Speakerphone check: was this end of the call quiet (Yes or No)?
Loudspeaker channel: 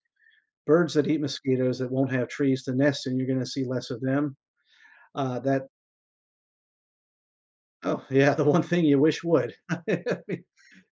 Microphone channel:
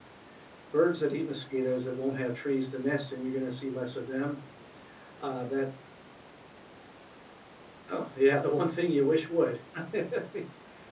Yes